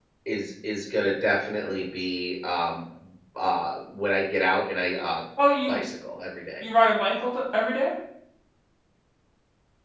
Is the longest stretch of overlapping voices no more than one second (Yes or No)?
Yes